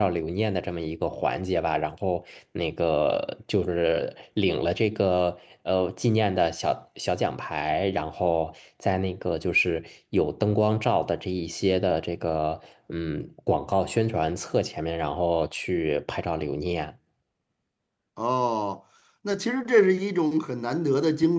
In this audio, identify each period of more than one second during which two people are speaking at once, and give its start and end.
none

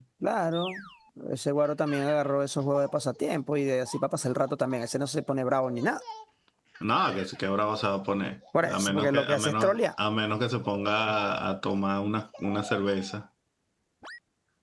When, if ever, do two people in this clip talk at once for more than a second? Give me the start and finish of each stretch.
8.6-9.8

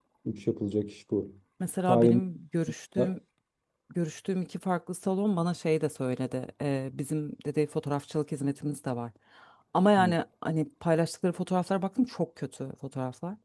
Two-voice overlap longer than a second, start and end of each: none

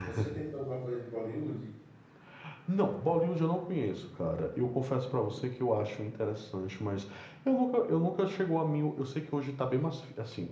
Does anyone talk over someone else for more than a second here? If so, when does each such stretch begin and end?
none

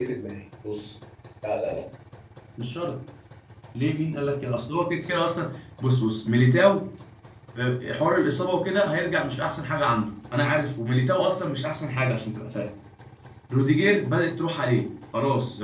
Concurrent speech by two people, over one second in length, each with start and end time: none

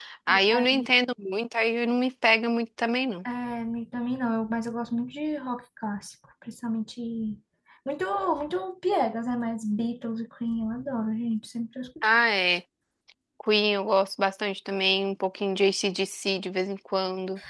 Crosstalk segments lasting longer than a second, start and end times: none

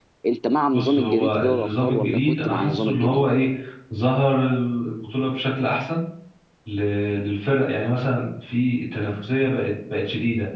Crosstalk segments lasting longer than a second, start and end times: 0.7-3.4

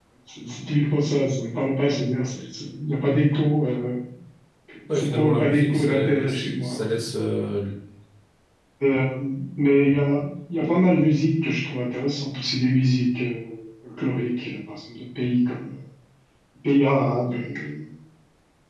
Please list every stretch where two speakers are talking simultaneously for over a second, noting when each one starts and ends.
4.9-7.0

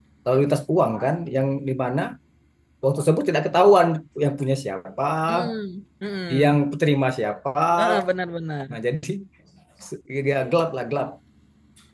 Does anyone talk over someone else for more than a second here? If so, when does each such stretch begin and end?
none

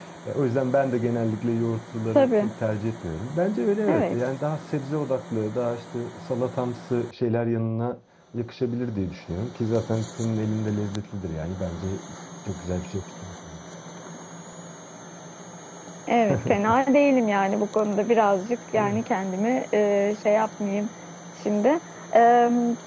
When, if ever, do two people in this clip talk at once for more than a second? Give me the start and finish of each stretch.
none

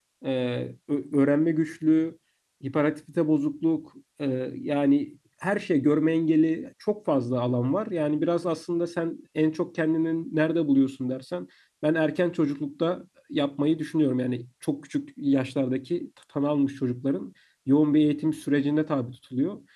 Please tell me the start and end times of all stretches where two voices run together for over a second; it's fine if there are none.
none

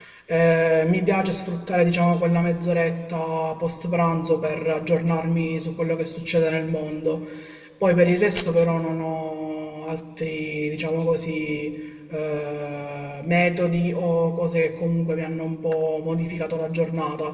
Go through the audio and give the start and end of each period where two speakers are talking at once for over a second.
none

